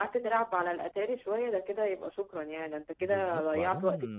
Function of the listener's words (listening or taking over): taking over